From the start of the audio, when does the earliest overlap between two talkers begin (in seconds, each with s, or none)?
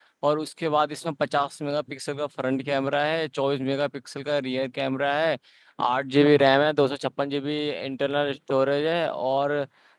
none